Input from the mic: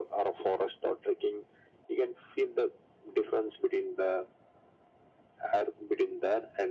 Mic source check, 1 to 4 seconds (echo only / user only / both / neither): echo only